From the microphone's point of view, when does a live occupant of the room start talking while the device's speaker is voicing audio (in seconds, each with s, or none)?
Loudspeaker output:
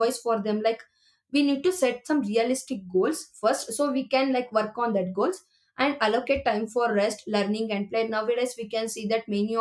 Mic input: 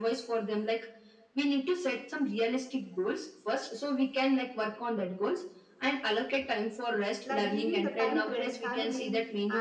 7.2 s